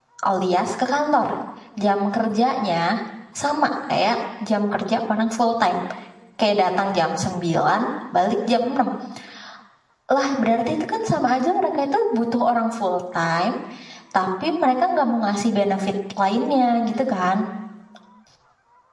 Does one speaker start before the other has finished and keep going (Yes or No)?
No